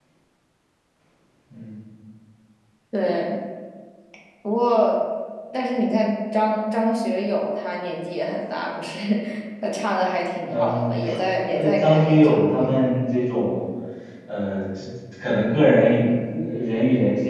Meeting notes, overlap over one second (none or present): present